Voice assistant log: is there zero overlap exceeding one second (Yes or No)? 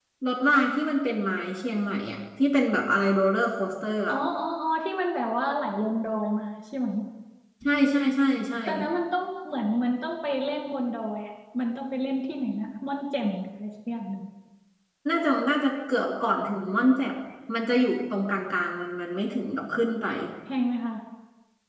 Yes